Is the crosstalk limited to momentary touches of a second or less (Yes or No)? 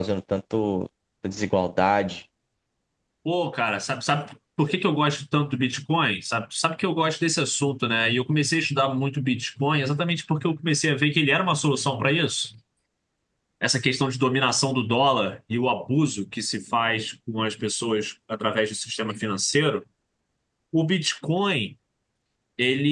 Yes